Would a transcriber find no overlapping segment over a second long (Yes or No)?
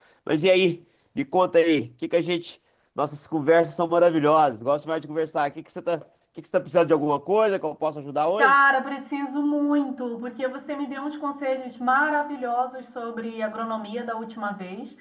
Yes